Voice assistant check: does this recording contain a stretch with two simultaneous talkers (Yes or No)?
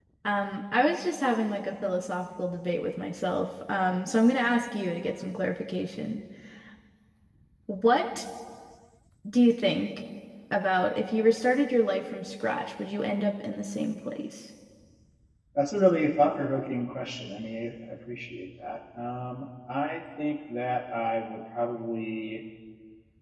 No